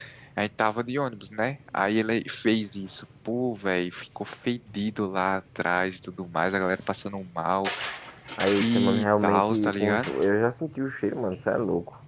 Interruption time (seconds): 8.6 s

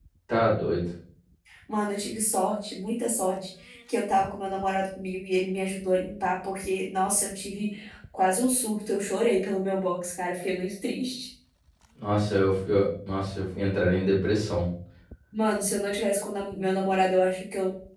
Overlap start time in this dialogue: none

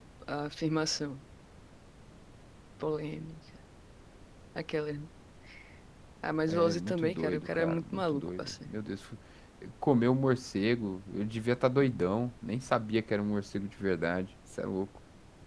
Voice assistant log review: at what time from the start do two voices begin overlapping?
6.5 s

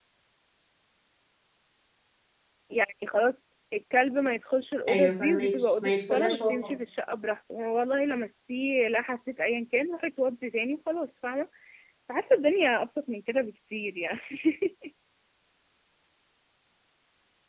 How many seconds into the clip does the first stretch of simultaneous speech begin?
4.9 s

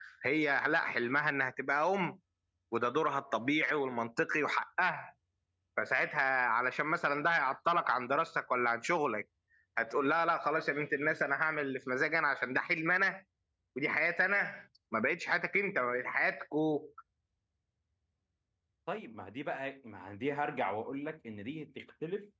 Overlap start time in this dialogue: none

